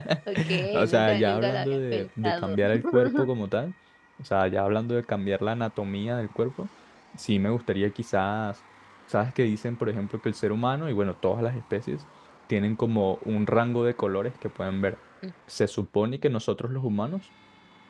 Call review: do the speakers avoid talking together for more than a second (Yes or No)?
No